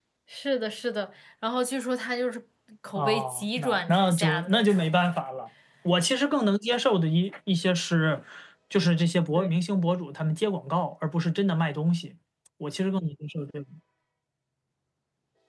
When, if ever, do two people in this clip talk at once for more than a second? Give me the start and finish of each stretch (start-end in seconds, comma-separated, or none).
3.0-4.8